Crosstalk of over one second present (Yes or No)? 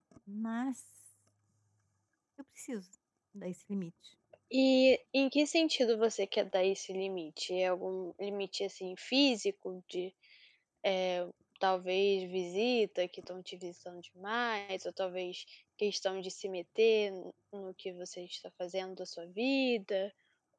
No